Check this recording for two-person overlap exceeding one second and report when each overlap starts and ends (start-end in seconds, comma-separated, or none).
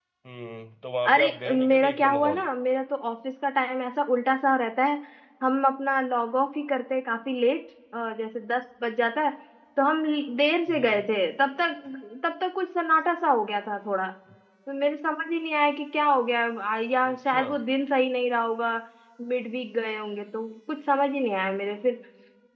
1.1-2.4